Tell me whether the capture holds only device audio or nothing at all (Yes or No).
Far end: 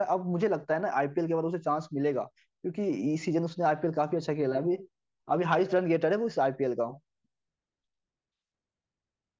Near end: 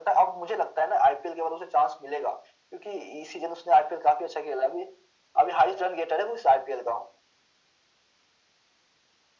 Yes